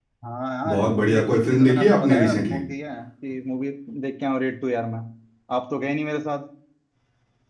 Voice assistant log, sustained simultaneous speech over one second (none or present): present